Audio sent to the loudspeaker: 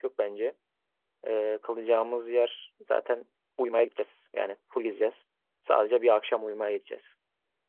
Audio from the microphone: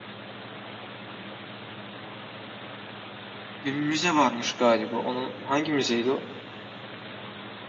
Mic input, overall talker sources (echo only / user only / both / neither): user only